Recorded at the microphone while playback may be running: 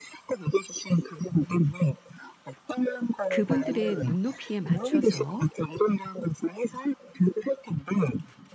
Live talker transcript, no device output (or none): '그분들의 눈높이에 맞춰서